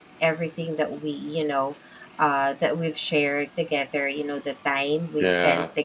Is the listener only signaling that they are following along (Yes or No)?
Yes